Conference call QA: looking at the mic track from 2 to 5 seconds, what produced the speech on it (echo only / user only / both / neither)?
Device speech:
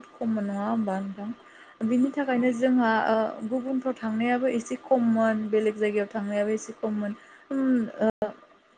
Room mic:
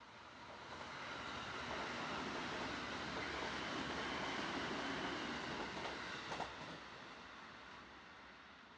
neither